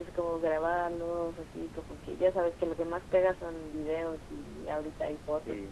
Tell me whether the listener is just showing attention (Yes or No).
Yes